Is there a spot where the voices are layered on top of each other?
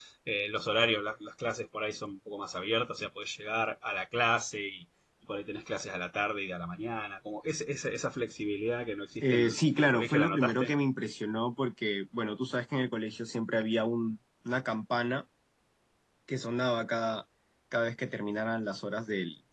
Yes, from 9.2 s

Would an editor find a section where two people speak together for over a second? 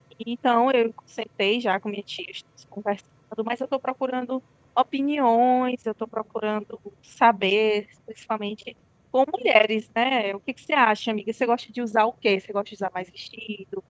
No

